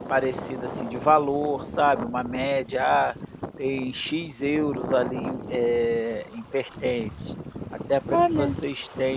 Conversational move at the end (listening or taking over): listening